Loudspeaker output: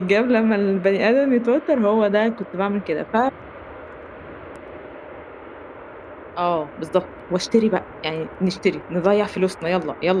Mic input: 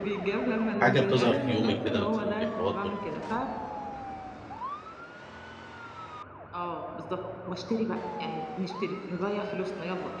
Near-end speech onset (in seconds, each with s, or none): 0.8 s